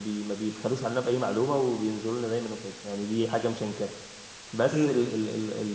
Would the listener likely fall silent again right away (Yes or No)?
Yes